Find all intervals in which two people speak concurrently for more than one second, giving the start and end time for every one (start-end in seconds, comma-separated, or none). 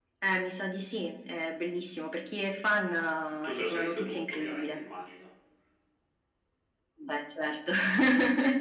3.4-4.8